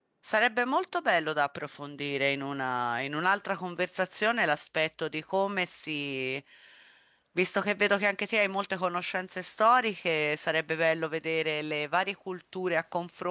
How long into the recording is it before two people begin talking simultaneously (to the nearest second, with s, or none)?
none